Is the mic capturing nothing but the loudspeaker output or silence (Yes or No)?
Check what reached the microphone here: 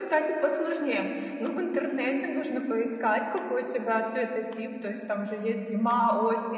Yes